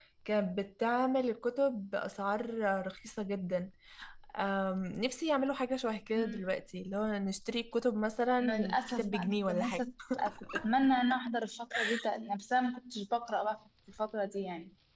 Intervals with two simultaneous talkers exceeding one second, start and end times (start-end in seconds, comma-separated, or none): 8.4-9.8